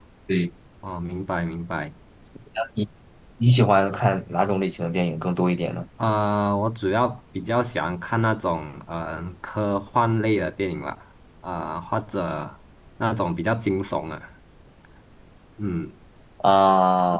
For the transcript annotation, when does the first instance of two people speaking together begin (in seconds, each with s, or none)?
none